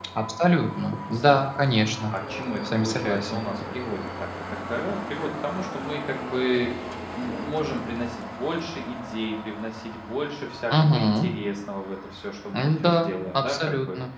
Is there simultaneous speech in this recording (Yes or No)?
Yes